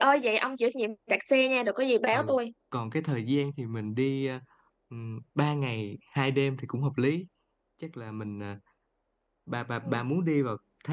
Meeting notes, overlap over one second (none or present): none